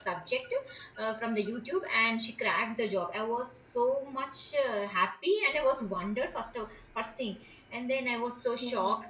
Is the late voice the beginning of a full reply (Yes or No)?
No